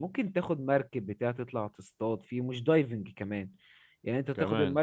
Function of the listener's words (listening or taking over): listening